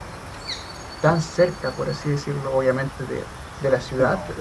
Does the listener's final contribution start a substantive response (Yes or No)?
No